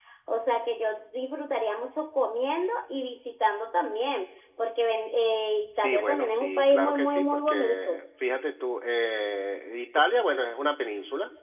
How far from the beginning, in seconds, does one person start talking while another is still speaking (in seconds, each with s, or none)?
5.7 s